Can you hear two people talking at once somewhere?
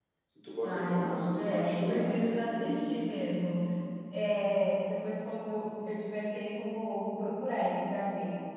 Yes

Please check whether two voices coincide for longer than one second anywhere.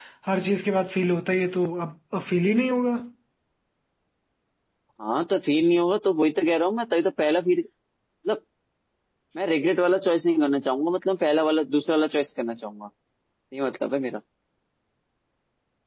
No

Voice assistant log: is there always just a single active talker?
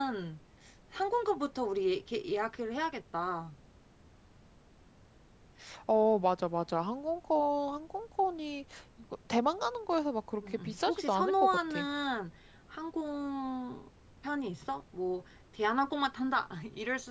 No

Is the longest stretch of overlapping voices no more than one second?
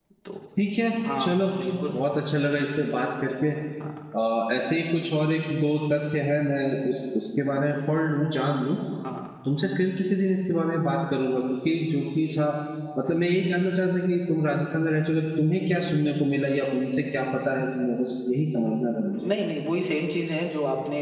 Yes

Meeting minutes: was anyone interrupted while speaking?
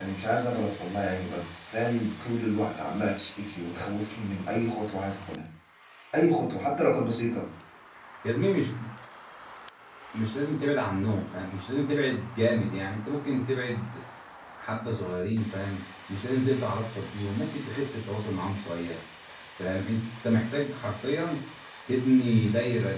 No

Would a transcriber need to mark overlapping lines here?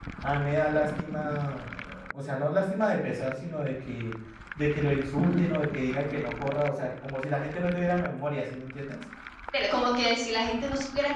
No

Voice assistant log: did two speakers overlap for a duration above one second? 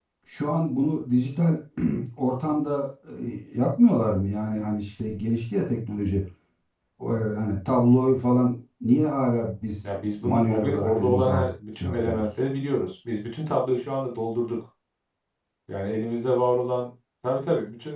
Yes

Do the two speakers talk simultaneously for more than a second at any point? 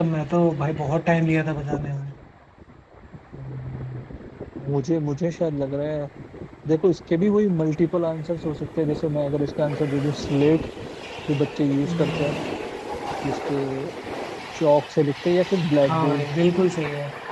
No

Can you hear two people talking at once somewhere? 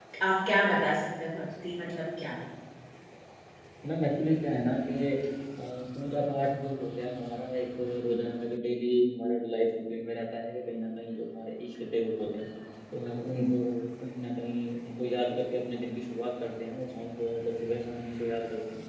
No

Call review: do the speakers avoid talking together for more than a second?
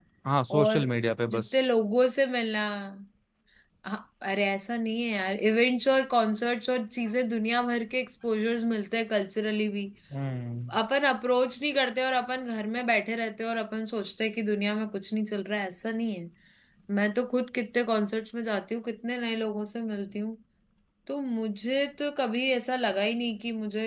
Yes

